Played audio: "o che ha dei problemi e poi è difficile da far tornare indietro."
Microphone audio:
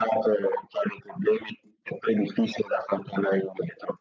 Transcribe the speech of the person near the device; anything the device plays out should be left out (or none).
none